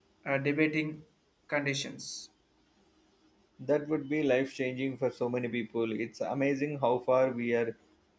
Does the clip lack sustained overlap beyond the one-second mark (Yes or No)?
Yes